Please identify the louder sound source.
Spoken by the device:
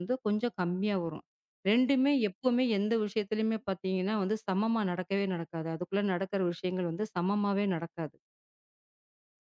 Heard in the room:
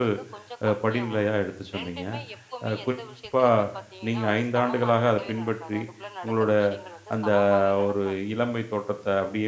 user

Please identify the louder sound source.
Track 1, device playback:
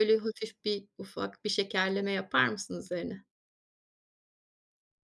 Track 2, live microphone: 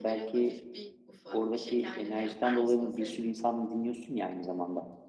user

